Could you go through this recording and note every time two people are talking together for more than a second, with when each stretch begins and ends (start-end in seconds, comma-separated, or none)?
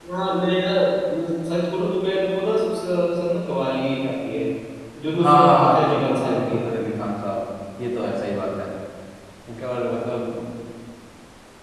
5.2-6.6